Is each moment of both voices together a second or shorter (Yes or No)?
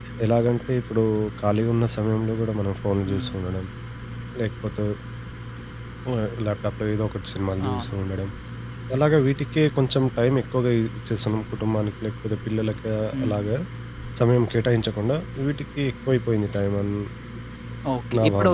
Yes